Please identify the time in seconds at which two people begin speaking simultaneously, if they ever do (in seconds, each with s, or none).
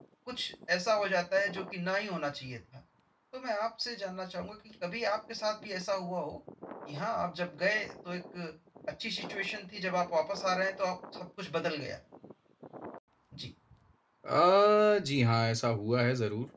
none